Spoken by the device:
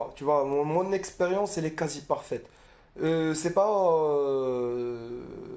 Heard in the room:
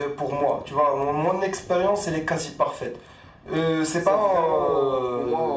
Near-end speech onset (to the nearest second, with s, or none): 4 s